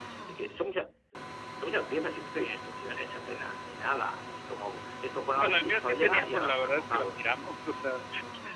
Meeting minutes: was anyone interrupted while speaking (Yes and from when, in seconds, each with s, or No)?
Yes, from 5.3 s